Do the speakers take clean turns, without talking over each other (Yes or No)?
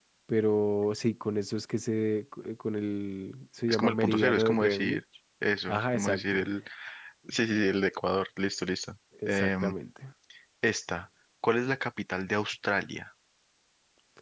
No